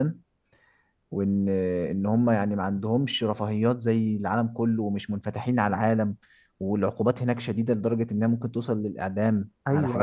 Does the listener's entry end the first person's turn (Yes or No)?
Yes